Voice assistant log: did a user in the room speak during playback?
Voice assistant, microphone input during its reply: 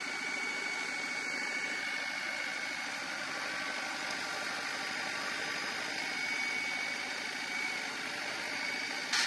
No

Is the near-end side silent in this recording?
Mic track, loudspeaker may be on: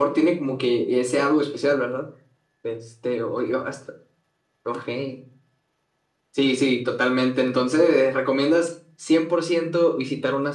Yes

